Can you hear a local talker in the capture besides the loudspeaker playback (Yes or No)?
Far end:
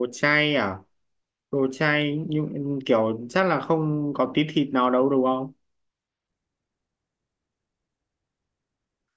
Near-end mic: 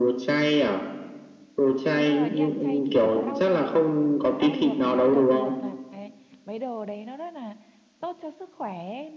Yes